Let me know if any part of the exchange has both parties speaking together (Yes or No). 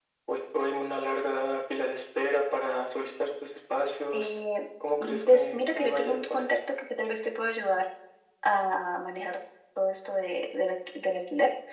Yes